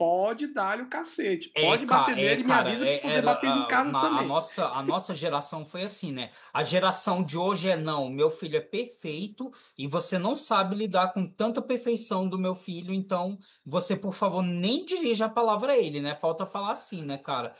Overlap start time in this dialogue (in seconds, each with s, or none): 1.6 s